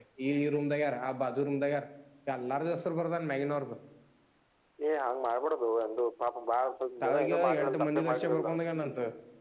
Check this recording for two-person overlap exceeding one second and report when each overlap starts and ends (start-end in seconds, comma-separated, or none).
7.0-8.5